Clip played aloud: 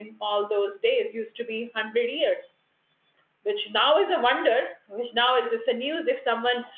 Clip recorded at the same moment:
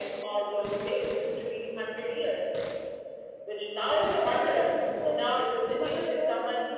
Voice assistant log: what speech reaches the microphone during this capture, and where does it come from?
both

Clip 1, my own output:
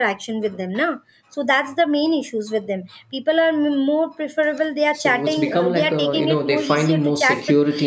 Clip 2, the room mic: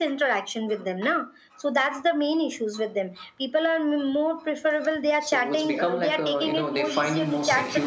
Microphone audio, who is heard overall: echo only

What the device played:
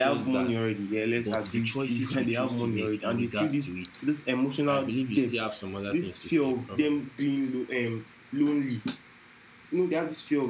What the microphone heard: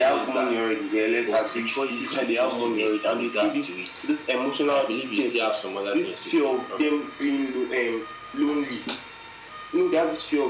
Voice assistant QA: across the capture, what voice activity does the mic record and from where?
echo only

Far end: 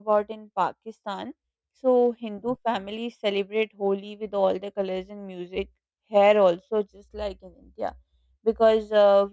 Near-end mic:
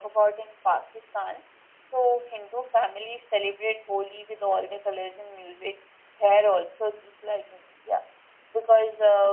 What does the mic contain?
echo only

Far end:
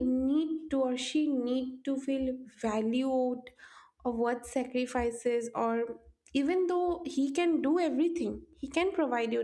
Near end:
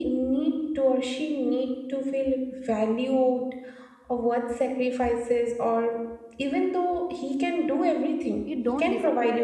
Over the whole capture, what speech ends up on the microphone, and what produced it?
both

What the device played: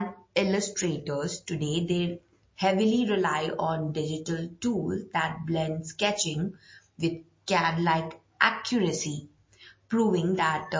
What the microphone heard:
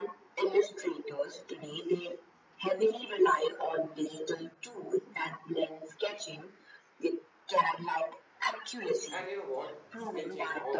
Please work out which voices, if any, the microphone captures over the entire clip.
both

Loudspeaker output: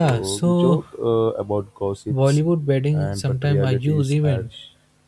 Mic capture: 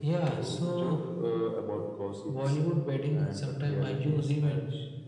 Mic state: echo only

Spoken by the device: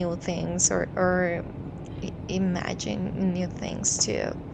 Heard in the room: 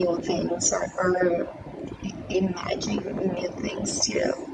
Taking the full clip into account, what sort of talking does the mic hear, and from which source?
echo only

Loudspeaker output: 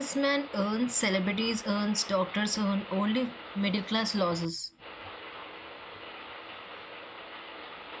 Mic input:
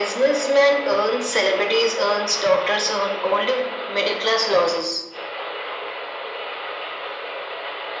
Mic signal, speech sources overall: echo only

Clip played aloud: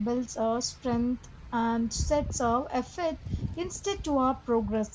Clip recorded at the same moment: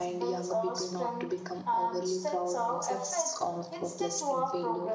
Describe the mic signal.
both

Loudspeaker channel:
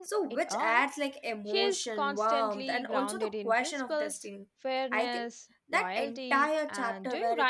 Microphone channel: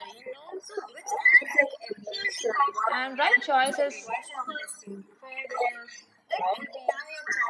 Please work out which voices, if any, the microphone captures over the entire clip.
both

